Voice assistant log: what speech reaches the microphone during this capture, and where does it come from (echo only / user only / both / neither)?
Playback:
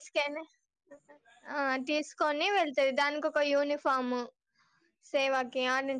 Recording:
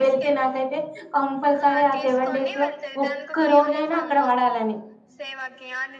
both